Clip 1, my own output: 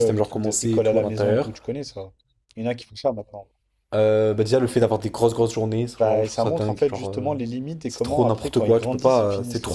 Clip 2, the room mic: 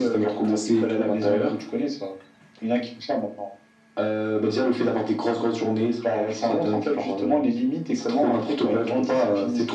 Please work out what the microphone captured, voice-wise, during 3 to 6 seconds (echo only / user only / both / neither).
echo only